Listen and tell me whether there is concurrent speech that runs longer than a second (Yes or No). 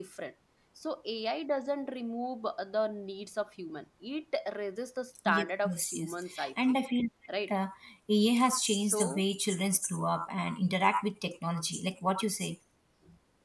Yes